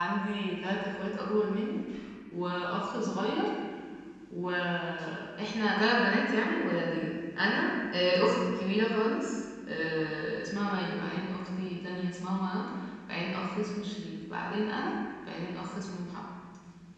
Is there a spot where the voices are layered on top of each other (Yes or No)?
No